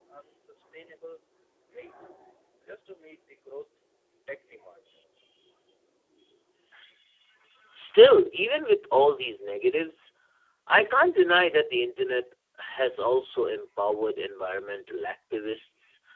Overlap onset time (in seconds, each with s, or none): none